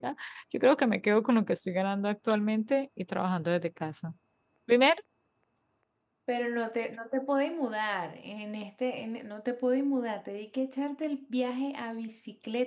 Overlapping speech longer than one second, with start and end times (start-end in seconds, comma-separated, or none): none